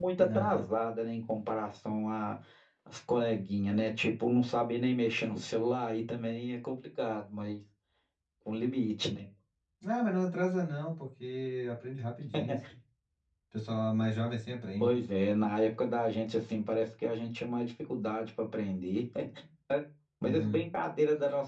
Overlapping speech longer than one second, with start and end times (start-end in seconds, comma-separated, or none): none